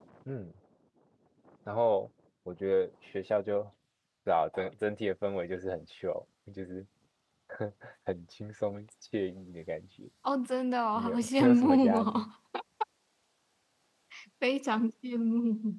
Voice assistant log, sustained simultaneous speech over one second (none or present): present